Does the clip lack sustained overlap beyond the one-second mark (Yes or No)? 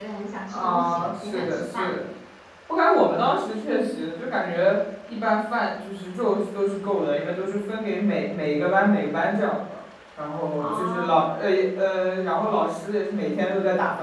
No